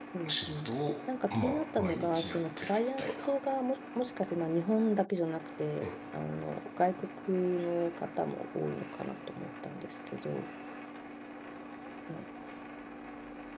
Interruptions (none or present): present